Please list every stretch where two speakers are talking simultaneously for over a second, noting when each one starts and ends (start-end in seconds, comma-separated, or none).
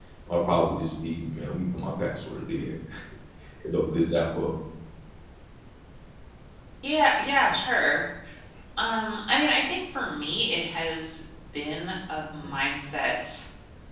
none